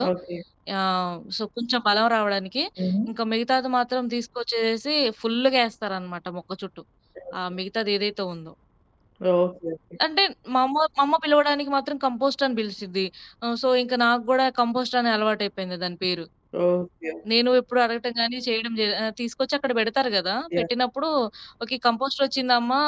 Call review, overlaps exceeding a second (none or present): none